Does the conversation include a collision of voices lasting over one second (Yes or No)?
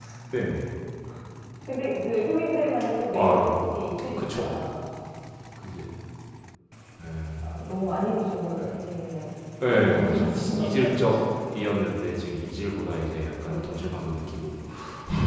Yes